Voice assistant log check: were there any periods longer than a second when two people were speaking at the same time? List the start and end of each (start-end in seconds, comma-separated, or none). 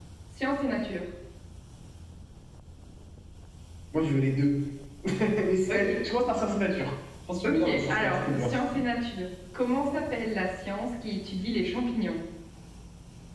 7.4-8.8